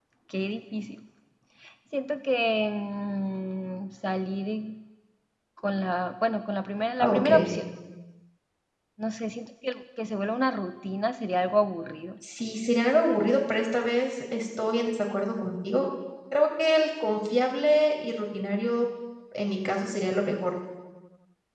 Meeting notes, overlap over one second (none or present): none